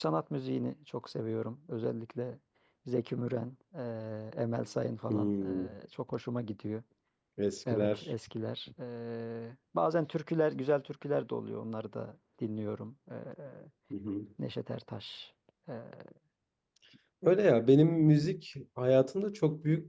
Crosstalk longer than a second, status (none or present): none